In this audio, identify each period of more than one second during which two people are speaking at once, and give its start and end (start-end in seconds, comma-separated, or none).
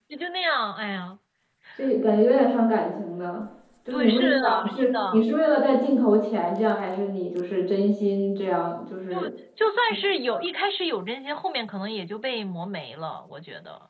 3.9-5.2